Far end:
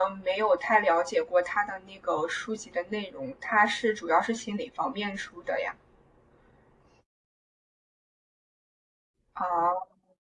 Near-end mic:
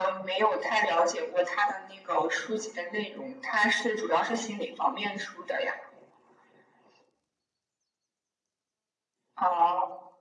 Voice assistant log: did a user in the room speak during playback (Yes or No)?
No